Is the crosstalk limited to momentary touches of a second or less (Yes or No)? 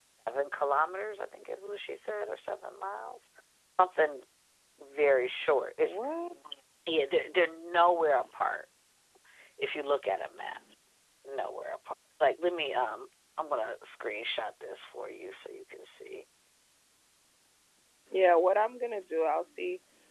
Yes